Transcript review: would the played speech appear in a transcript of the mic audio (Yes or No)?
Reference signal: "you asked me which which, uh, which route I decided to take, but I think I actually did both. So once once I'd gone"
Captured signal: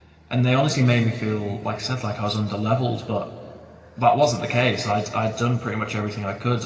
No